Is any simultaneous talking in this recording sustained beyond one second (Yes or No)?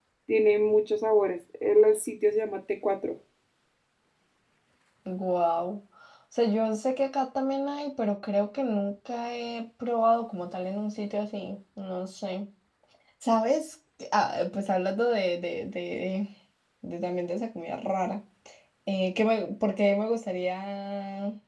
No